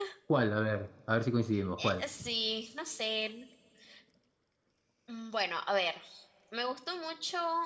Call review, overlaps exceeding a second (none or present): none